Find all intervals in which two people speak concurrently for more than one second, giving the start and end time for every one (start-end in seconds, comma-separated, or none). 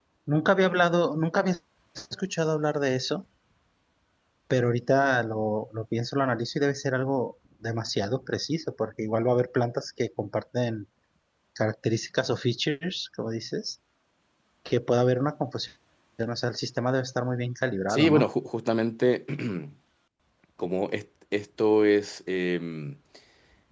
none